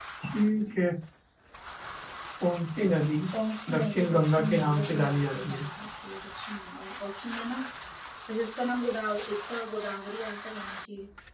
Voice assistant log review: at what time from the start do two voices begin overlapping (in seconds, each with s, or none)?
3.7 s